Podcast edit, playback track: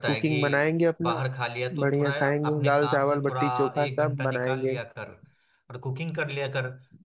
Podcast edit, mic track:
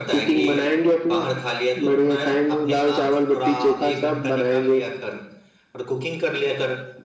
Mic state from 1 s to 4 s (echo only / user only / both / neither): echo only